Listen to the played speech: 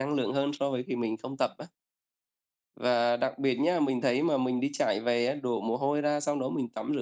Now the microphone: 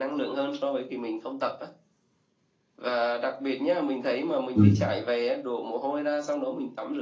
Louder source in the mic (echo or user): user